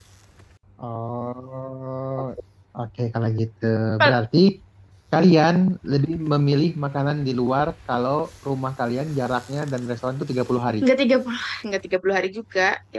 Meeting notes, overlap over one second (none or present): none